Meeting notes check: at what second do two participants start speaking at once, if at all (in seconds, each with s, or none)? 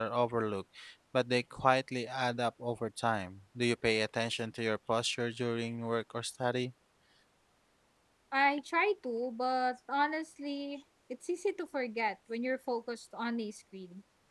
none